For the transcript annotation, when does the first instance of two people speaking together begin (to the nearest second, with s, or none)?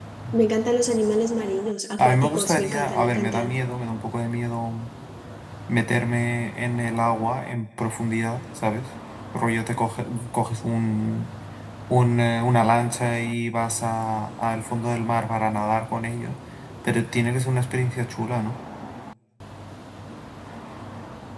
2 s